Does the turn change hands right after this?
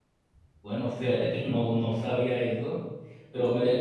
No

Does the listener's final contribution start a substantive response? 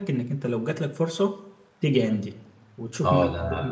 Yes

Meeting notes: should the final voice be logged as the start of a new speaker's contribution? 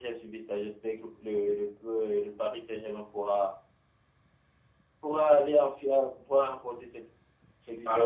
Yes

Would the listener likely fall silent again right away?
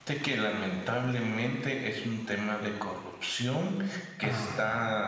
Yes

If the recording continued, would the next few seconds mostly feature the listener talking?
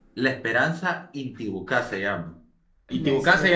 No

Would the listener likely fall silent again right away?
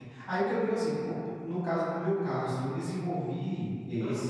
Yes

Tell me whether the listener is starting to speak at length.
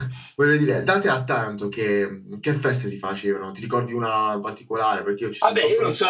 Yes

